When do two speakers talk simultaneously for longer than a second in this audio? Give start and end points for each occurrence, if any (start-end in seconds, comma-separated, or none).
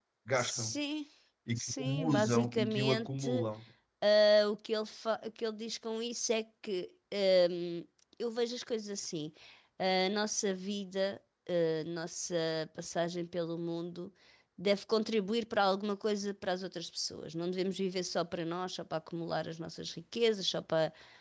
1.6-3.3